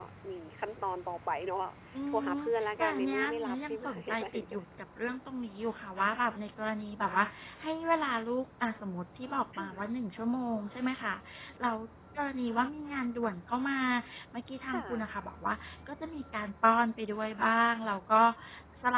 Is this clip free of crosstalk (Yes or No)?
No